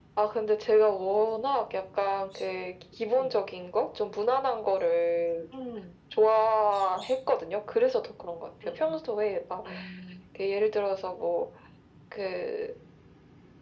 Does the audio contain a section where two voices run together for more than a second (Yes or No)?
No